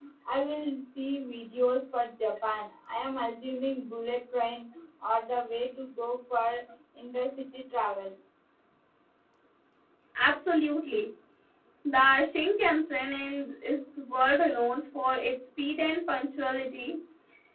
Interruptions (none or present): none